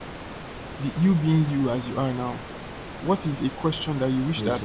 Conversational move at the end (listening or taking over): listening